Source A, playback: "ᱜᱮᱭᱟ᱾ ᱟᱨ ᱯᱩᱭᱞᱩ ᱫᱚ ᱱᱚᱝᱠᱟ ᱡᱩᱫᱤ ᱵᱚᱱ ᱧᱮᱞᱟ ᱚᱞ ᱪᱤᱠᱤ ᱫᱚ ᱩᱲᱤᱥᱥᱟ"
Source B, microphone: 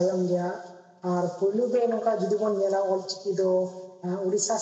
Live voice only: none

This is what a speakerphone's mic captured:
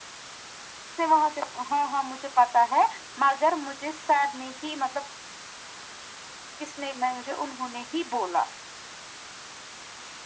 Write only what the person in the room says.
none

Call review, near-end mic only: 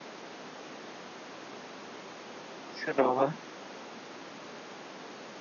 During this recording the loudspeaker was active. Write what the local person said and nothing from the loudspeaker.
सोरनावबा

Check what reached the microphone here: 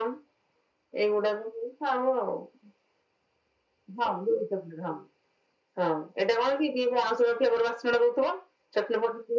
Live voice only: none

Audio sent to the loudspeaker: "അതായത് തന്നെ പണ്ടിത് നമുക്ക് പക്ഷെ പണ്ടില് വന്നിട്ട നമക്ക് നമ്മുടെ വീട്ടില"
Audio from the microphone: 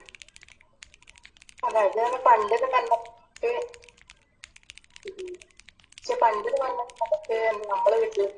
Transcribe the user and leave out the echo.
none

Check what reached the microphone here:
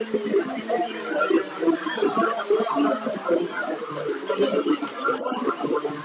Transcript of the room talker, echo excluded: none

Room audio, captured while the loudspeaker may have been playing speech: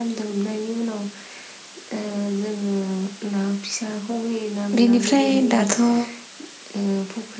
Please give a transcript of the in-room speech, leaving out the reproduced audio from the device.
बेनिफ्राय दाथ' ओ

